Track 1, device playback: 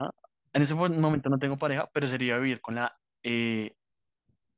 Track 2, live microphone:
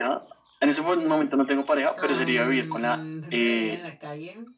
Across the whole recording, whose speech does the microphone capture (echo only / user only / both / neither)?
both